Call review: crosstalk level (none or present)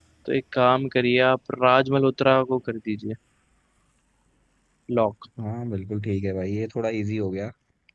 none